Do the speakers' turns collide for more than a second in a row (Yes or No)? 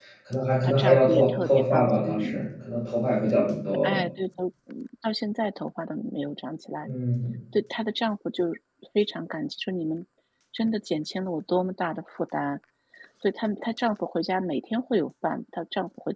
Yes